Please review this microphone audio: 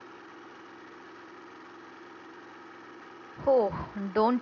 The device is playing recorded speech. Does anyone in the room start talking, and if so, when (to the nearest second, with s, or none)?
3 s